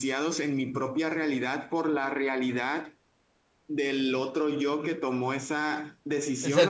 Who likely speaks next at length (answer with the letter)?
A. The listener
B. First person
B